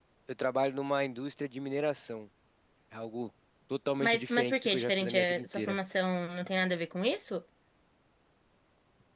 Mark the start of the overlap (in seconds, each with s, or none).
4.0 s